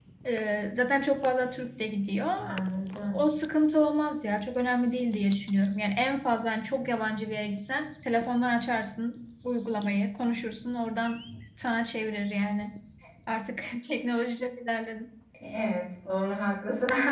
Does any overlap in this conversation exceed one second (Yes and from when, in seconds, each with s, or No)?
No